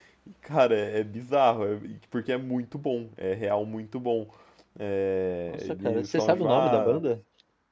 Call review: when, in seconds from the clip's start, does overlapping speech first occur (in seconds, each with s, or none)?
5.5 s